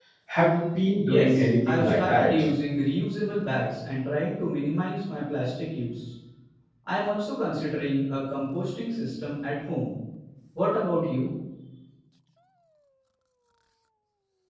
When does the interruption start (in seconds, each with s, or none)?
1.1 s